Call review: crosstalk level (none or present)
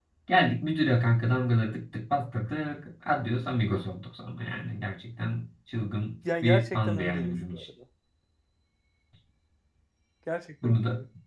present